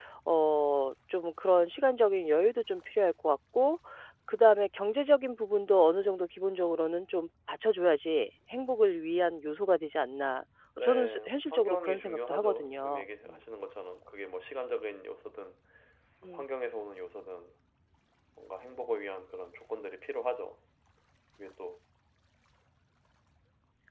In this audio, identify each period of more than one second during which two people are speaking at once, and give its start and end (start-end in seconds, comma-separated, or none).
10.8-13.4